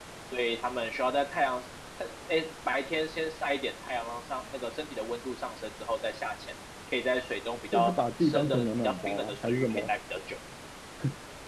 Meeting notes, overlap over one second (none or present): present